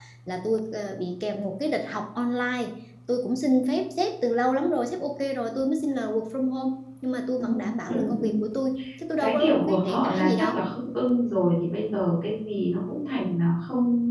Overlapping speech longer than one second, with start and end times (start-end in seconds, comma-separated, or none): 9.2-10.6